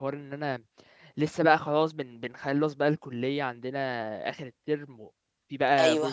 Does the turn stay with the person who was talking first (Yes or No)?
Yes